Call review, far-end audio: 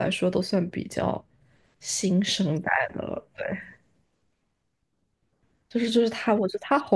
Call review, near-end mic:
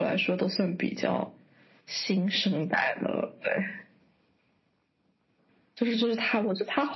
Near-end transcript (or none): none